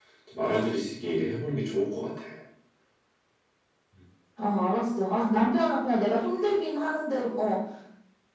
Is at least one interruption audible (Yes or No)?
No